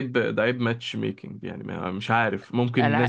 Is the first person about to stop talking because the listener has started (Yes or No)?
No